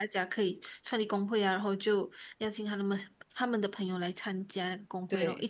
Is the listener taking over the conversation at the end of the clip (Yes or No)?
Yes